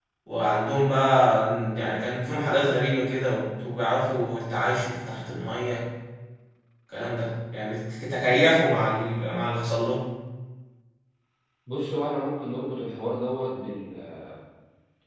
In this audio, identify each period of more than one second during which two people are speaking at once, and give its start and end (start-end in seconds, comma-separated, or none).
none